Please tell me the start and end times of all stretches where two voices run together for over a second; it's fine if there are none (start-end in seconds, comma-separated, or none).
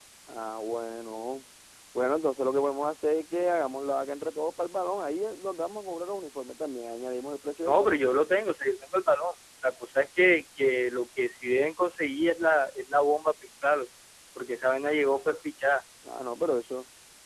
none